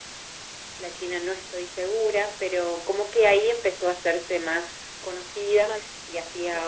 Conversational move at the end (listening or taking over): listening